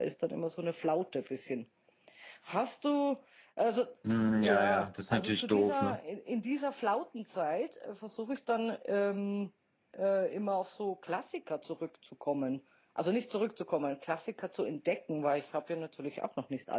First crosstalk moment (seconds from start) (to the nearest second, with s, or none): 4 s